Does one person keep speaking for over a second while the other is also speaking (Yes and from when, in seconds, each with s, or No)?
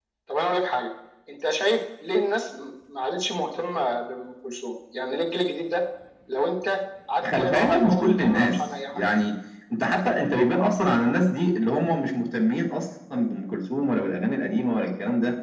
Yes, from 7.2 s